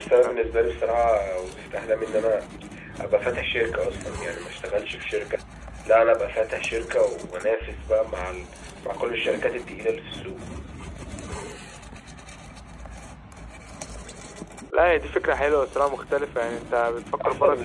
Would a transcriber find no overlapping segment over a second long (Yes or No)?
Yes